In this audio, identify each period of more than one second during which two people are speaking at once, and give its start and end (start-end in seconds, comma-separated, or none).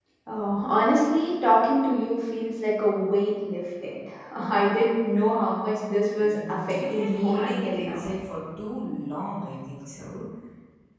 6.2-8.1